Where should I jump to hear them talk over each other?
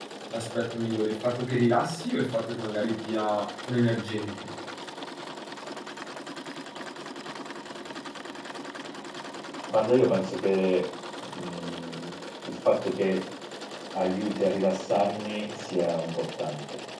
none

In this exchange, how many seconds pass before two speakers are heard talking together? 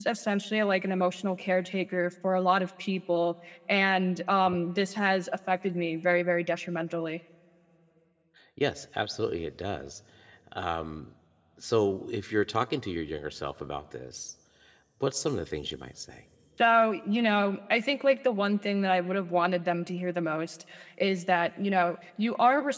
none

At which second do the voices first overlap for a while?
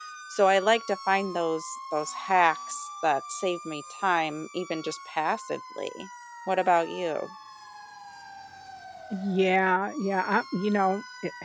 none

